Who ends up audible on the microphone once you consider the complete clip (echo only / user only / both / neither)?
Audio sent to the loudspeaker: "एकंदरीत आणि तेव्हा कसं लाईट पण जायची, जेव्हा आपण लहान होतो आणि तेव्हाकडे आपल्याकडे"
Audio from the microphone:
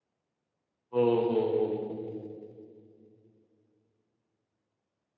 user only